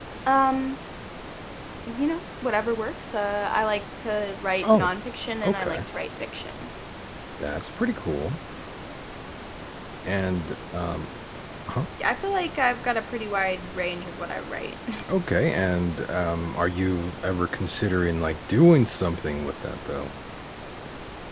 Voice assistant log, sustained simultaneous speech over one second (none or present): none